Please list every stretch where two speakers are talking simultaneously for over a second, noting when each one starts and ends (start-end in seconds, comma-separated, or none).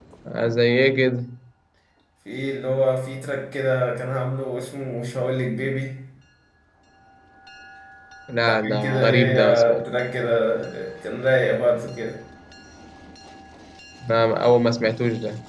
8.5-9.9